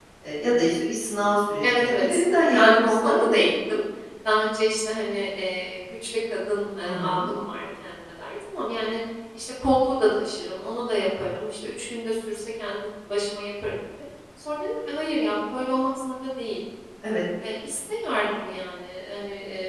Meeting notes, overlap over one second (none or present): present